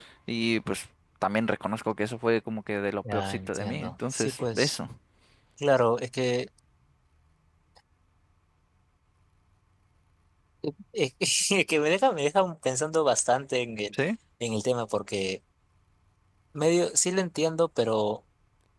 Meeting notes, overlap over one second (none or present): present